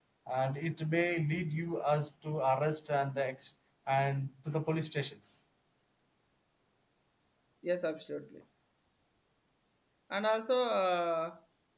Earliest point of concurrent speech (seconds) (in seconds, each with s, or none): none